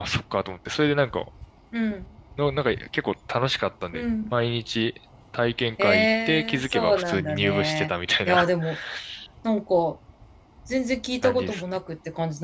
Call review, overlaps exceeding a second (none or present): present